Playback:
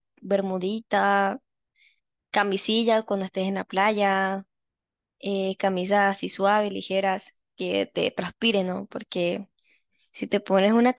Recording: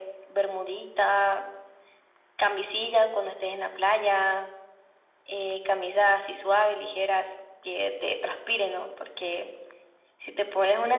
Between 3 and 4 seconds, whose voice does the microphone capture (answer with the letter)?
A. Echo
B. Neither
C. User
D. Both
A